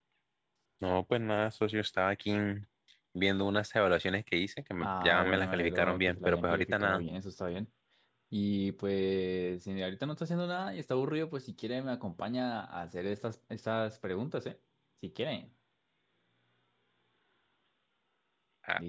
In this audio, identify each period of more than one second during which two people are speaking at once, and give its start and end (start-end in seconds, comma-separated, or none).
4.8-7.0